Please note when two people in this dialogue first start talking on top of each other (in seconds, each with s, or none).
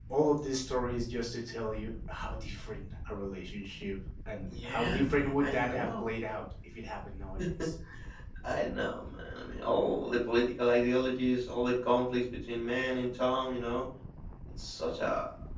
4.5 s